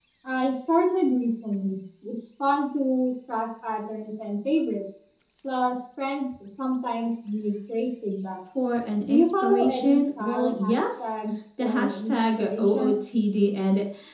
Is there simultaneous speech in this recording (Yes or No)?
Yes